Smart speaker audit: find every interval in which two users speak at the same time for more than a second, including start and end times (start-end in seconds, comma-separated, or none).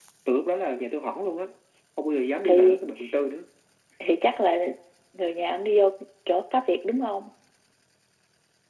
none